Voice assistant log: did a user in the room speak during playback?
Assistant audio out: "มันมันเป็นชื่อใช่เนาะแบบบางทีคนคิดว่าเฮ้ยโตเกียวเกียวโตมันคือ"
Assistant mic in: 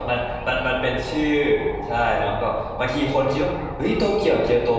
No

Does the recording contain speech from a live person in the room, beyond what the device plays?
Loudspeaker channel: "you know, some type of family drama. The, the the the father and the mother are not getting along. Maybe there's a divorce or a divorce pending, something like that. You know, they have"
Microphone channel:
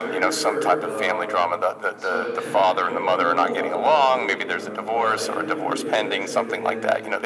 Yes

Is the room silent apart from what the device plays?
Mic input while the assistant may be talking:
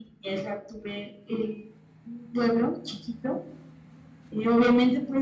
Yes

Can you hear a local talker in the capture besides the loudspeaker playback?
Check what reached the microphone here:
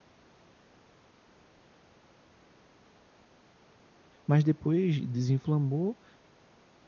Yes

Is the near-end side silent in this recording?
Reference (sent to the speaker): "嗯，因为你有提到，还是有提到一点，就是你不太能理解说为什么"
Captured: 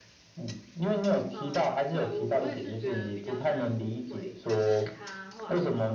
No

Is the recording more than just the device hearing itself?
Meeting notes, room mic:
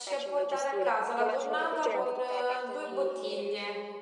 Yes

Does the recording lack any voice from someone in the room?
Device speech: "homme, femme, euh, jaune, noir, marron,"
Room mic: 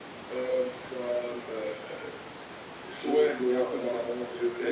No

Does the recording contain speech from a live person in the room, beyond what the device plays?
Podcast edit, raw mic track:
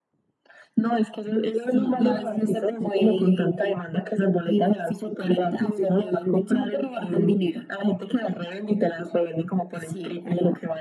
No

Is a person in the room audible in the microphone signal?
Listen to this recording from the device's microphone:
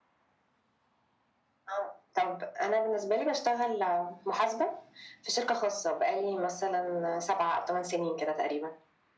No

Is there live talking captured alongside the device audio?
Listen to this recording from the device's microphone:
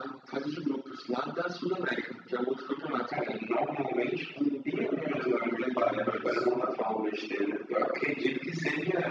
Yes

